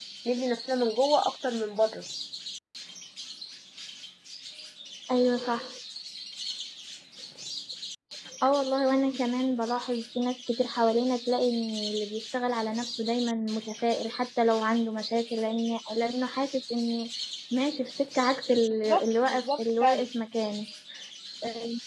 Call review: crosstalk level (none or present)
present